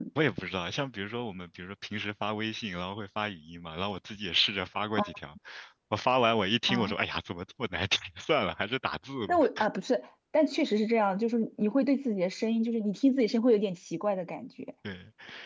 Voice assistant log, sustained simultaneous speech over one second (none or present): none